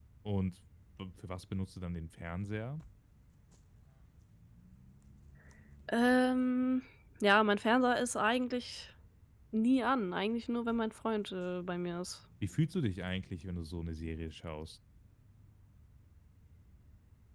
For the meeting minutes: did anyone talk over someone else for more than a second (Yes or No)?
No